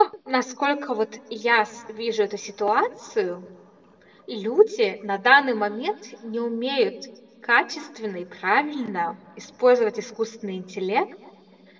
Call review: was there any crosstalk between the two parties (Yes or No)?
No